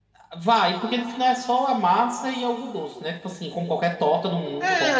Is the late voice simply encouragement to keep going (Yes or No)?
No